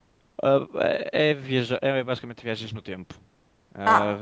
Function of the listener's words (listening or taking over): taking over